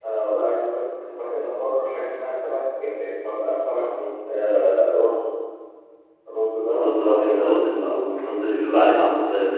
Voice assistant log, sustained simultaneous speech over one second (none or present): present